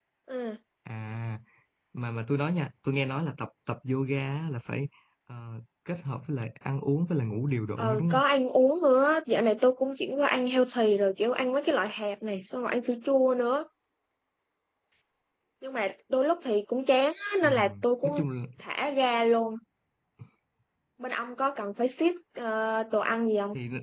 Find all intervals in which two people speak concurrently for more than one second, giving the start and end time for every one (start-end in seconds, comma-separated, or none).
none